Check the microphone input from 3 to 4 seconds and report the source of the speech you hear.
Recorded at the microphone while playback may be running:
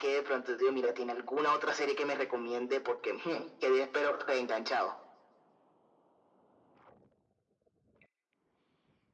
echo only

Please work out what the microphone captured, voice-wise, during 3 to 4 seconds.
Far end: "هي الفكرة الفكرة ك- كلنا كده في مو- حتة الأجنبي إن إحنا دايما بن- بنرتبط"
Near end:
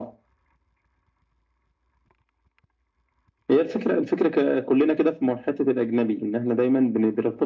echo only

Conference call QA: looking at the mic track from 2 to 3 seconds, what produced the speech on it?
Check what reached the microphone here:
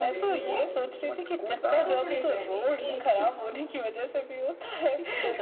both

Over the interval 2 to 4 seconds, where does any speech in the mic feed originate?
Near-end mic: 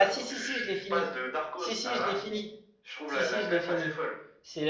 both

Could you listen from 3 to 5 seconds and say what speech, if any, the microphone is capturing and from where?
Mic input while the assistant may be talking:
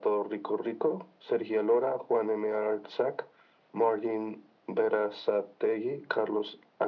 echo only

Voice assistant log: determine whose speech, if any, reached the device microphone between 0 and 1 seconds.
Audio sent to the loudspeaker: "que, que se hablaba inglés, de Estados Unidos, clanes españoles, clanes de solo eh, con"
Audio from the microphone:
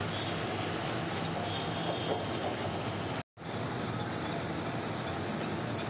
neither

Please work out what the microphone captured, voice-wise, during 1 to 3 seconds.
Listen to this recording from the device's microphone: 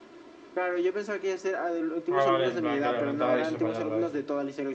both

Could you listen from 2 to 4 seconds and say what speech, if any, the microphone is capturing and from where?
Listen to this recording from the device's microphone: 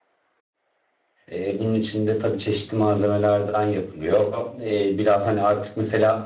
user only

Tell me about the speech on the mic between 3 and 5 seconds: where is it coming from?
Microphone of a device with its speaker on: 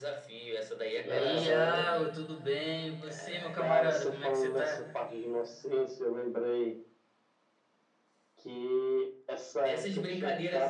both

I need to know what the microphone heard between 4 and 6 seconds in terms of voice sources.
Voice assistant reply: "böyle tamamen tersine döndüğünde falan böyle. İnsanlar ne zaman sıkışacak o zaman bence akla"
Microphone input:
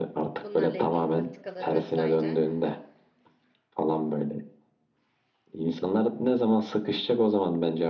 echo only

